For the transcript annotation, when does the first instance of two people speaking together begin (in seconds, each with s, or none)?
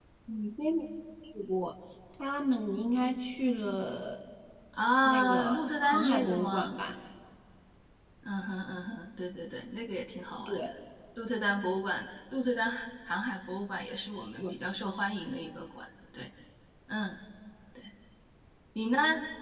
5.0 s